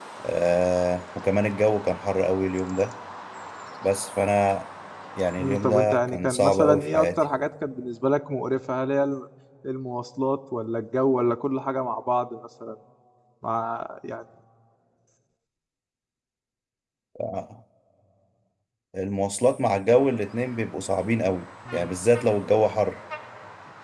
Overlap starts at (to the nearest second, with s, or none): 5 s